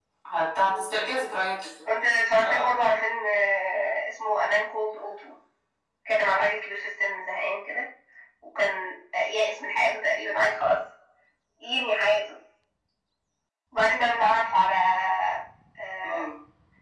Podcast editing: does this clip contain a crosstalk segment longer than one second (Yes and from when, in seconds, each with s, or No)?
No